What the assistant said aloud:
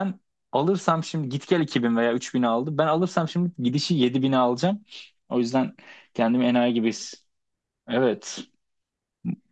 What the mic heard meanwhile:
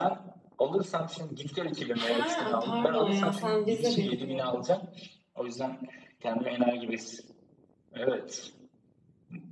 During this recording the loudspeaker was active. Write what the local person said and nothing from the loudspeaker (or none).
Ha, ay pardon ya sen vize bekliyordun.